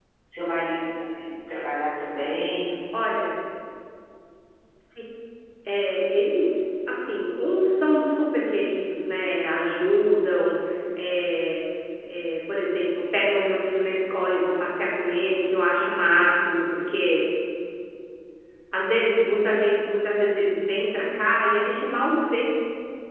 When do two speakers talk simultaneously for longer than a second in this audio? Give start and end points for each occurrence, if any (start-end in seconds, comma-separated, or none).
none